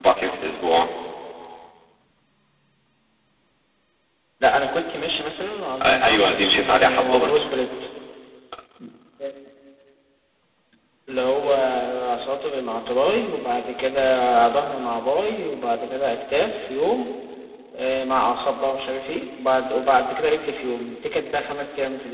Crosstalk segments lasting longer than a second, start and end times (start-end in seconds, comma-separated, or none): 5.8-7.3